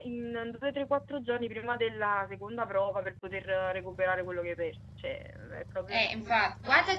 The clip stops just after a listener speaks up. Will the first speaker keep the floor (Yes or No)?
No